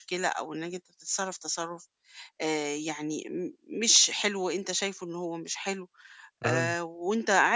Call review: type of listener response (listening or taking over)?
listening